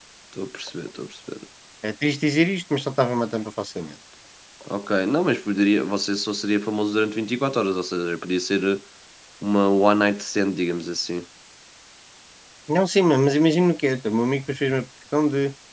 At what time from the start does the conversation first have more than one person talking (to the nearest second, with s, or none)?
none